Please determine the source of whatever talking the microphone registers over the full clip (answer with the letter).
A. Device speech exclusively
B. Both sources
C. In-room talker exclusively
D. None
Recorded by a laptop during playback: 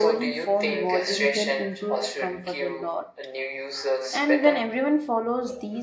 B